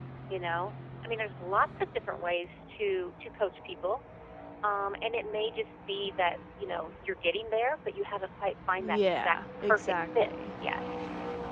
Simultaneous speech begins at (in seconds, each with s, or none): 8.8 s